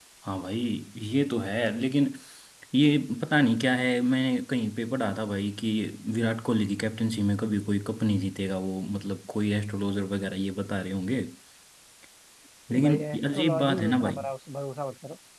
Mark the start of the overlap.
12.7 s

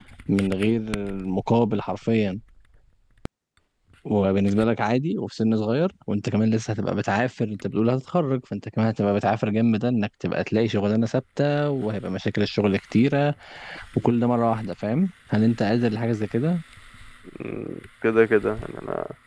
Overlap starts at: none

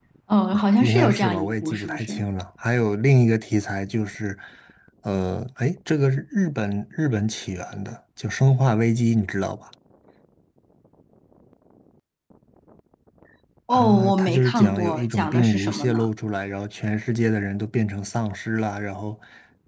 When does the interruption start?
0.5 s

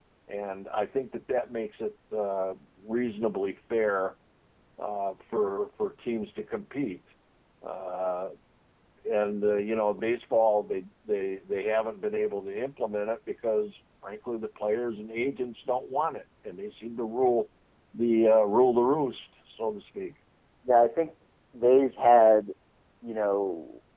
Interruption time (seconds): none

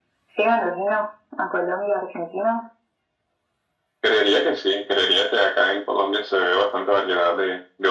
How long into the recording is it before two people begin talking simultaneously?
none

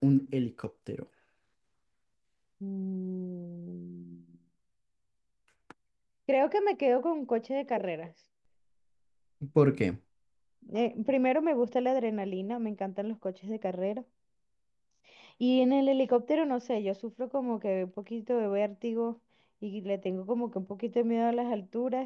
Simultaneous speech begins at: none

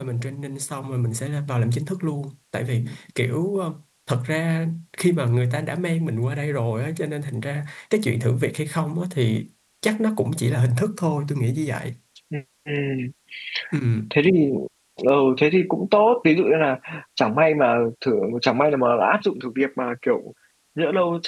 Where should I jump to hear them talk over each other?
none

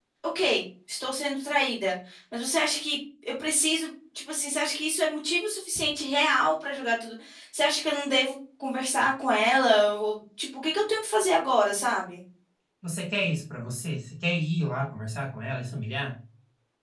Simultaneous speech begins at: none

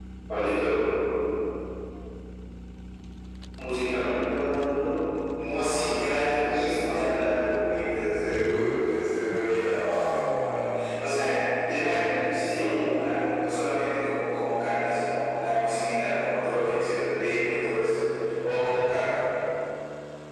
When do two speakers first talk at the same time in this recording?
5.6 s

